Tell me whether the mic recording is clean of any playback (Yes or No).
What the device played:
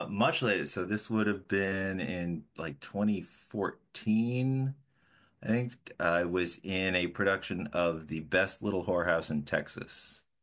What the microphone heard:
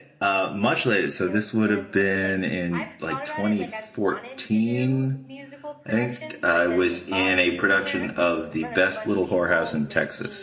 No